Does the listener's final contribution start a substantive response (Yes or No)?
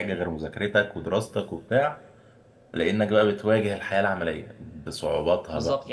Yes